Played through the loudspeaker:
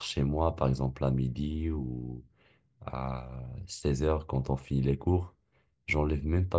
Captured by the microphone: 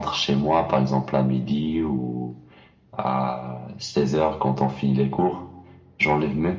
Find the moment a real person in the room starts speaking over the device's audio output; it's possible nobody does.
none

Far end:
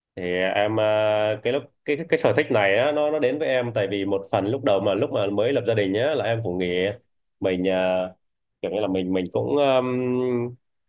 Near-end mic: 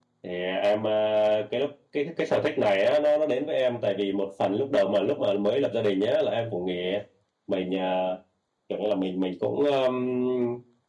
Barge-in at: none

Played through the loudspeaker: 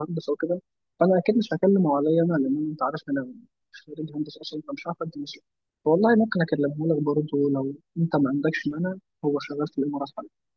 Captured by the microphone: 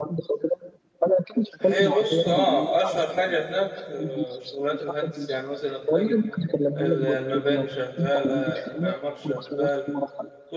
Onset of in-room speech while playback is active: 1.6 s

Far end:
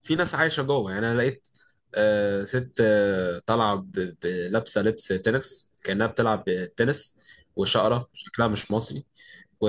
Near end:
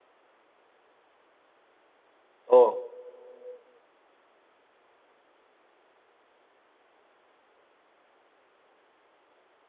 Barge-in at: 2.5 s

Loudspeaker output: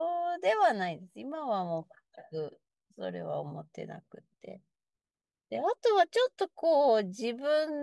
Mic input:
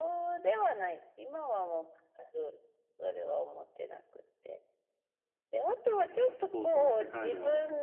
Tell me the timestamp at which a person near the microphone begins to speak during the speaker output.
6.0 s

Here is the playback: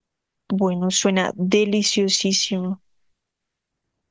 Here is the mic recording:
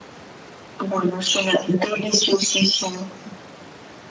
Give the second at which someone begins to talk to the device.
none

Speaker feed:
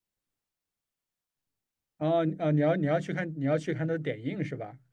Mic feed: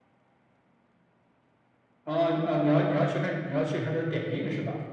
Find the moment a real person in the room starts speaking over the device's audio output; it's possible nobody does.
none

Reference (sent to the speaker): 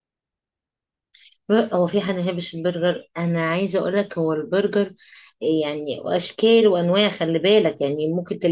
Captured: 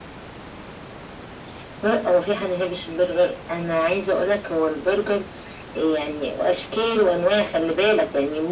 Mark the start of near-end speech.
none

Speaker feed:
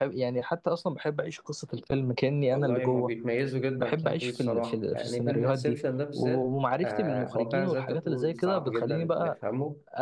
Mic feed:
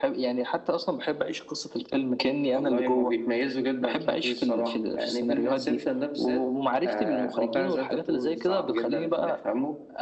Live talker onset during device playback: none

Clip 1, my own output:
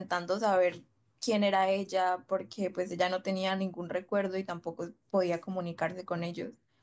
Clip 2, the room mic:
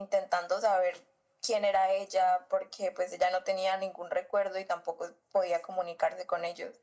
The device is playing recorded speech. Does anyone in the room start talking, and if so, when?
none

